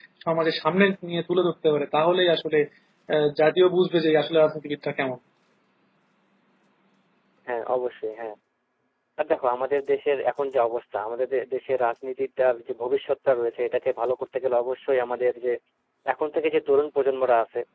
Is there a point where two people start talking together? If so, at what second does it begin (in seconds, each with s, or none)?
none